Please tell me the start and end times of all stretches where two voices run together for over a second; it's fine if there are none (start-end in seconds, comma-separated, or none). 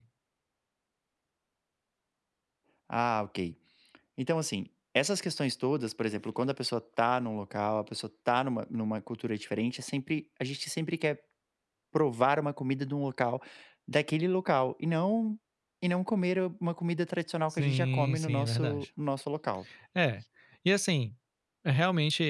17.5-18.9